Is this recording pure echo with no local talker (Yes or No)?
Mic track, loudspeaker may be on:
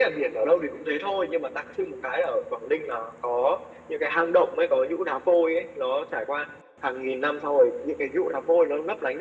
Yes